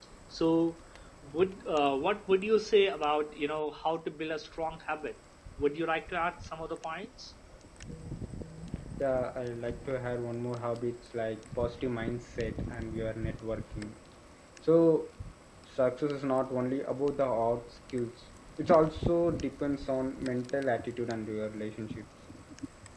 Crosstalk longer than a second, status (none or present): none